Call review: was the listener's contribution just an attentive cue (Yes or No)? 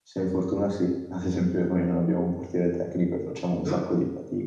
Yes